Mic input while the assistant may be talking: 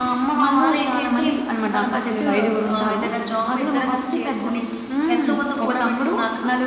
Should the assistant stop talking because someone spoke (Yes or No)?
Yes